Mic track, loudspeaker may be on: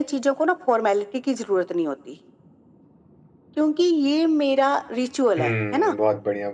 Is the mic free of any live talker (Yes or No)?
No